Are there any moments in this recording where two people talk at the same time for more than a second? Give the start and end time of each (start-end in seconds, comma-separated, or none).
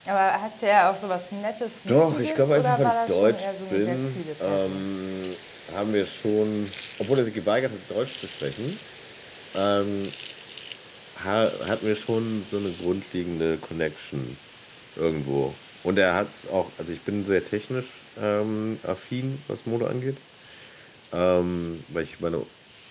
1.9-4.8